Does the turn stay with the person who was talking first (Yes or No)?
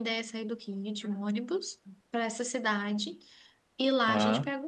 Yes